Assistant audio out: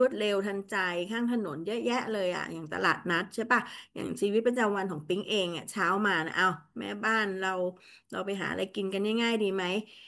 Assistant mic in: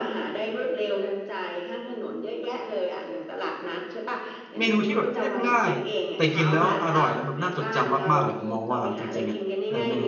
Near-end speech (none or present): present